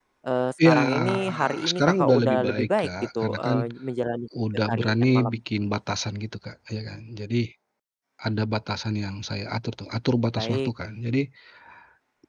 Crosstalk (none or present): present